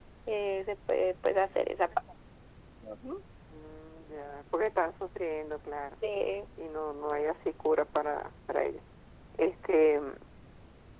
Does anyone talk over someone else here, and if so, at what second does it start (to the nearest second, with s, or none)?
none